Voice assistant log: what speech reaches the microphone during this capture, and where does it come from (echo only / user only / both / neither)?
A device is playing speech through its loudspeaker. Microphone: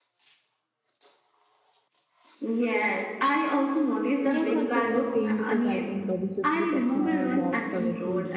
both